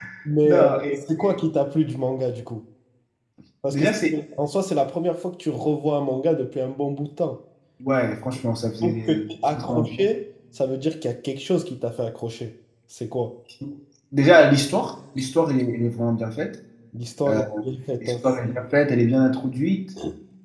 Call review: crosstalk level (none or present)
present